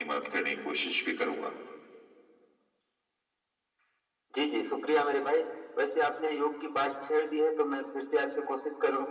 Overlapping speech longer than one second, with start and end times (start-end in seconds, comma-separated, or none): none